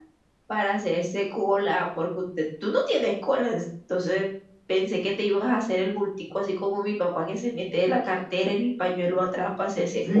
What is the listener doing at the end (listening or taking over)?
taking over